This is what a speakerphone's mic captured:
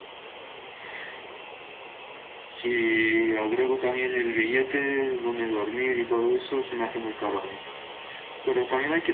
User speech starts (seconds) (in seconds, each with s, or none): none